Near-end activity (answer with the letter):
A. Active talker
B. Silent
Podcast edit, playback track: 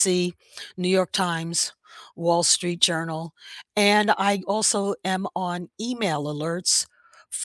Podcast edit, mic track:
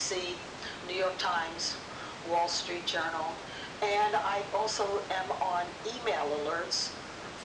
B